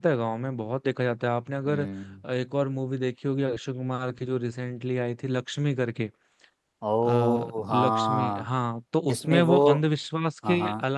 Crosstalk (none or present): present